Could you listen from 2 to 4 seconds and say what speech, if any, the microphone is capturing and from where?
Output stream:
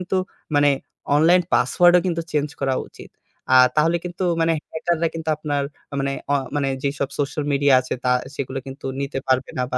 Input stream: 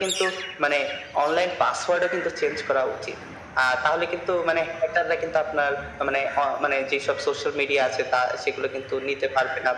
echo only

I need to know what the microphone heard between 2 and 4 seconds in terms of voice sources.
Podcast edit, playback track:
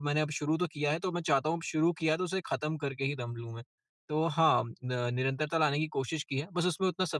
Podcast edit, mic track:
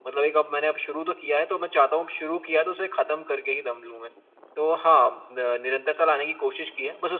echo only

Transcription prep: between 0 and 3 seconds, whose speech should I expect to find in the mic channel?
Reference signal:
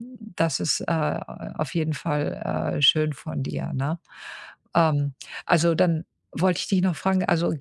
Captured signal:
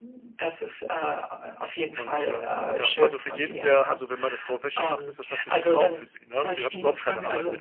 both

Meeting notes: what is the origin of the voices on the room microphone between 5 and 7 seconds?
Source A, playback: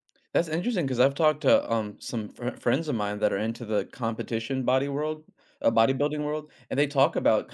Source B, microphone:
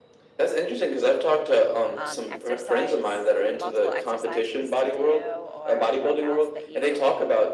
both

